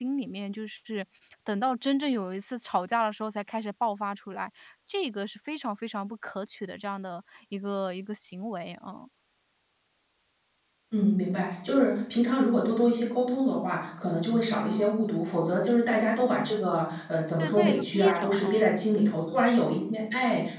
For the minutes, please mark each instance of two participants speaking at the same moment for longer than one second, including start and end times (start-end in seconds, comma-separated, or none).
17.4-18.7